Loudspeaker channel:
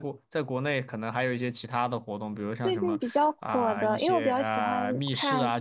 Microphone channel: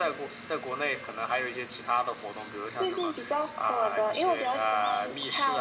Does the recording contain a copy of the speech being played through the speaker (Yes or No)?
Yes